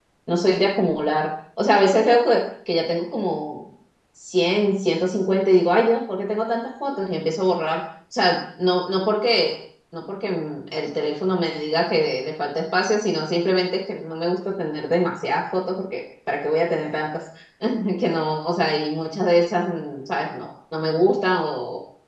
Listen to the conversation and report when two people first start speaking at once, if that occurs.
none

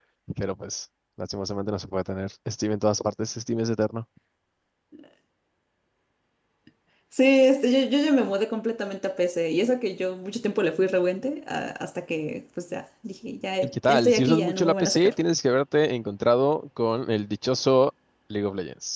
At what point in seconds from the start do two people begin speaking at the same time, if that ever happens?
14 s

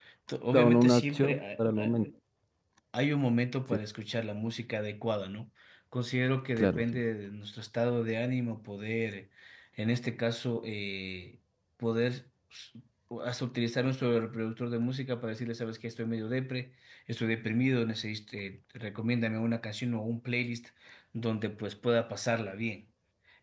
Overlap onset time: 1 s

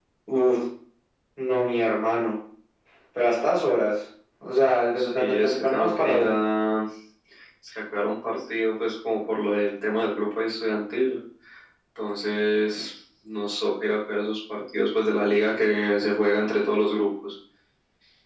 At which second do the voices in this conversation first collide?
5 s

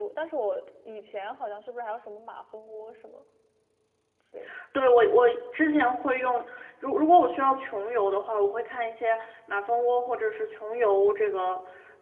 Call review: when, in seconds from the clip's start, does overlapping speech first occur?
none

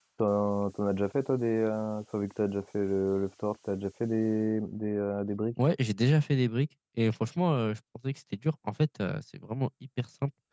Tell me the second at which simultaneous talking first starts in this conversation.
none

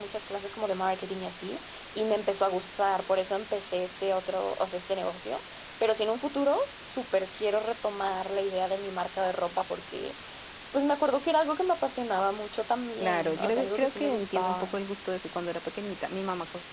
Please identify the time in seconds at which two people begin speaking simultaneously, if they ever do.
13 s

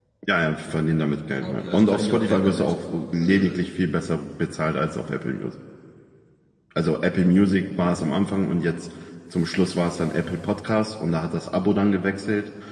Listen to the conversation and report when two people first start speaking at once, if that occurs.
1 s

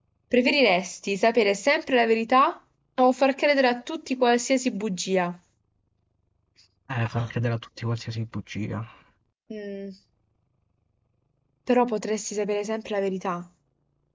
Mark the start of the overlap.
none

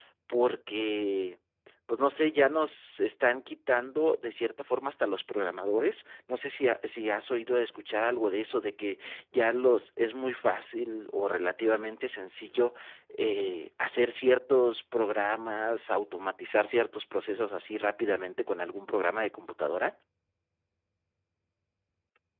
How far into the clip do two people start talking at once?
none

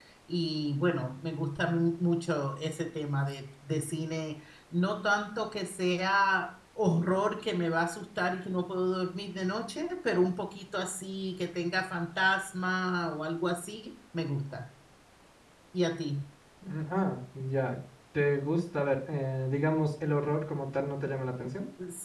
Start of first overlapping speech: none

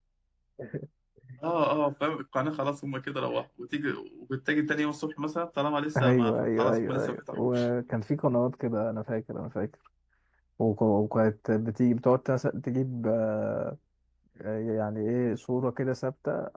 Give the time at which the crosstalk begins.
6 s

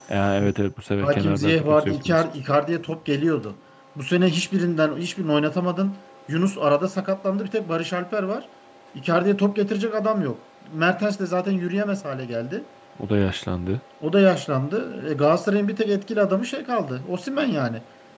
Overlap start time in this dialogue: 1 s

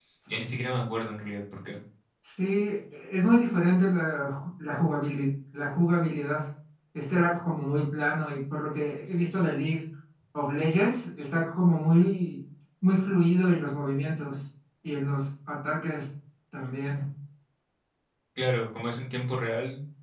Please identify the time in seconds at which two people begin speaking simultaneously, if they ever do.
none

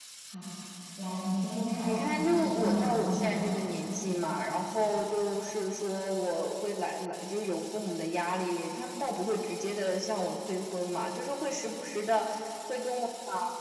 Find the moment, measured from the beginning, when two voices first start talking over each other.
2 s

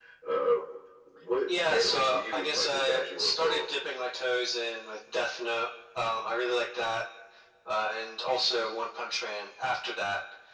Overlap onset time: 1 s

